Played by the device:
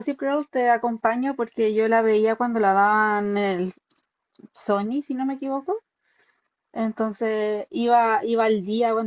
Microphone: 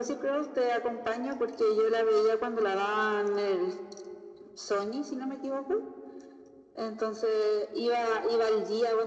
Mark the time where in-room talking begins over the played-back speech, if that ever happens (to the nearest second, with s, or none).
none